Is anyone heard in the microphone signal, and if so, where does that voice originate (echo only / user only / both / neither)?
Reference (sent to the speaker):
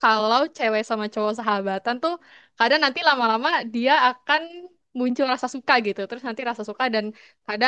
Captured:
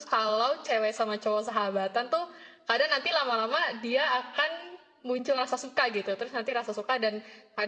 echo only